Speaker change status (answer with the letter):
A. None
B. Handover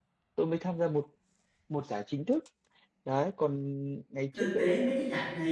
B